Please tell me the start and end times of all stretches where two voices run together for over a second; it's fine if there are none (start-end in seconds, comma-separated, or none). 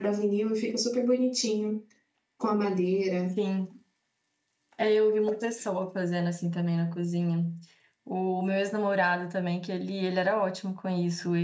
none